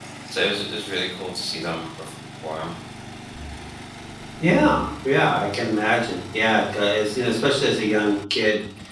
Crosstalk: none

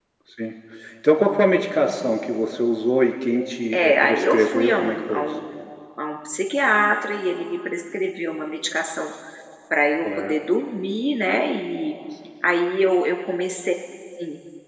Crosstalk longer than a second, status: present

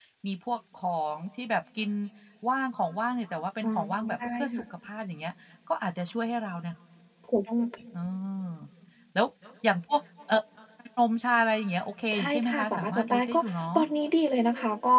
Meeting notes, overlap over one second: present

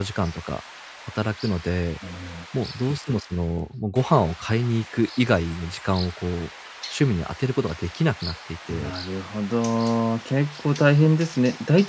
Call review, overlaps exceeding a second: none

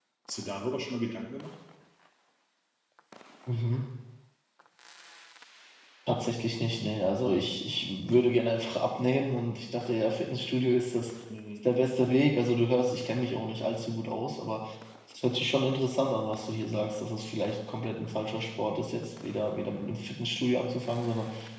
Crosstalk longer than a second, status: none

